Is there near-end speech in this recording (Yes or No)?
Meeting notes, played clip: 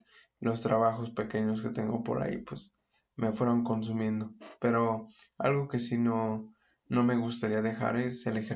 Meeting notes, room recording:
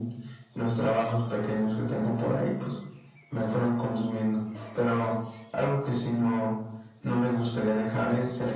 No